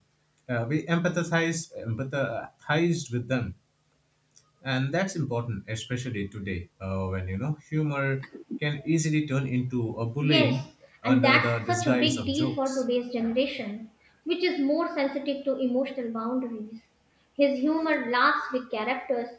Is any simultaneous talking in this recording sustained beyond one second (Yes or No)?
Yes